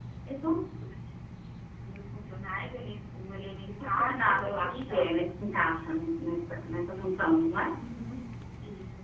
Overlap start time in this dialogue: 4 s

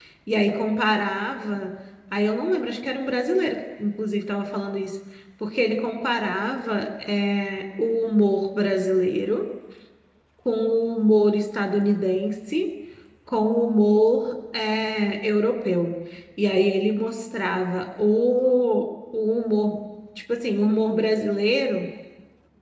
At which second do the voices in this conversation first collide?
none

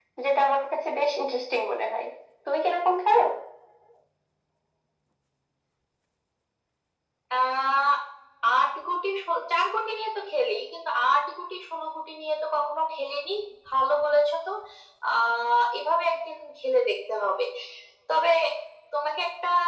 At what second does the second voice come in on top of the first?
none

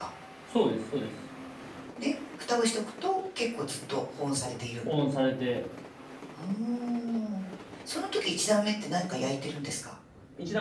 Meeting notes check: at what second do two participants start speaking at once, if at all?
none

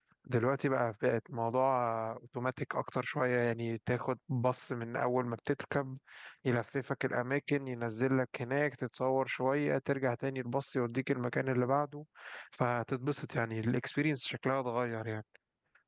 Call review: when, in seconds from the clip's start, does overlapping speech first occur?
none

